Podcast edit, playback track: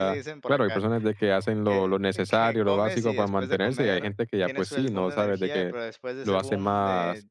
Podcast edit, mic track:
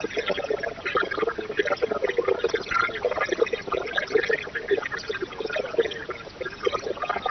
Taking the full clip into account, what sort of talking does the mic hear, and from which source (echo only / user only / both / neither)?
echo only